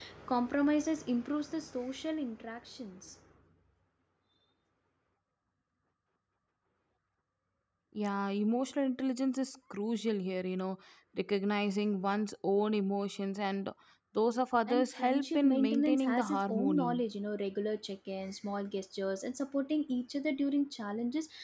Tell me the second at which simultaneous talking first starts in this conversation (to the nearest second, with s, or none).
15 s